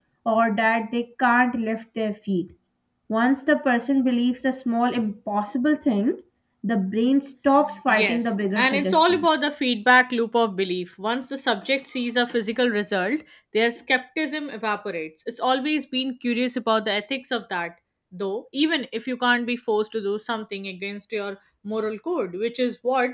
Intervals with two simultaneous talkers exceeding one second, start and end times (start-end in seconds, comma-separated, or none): 7.9-9.3